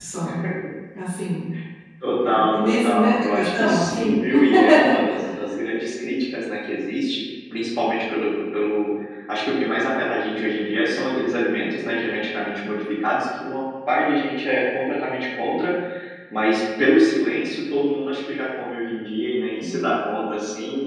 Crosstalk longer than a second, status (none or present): present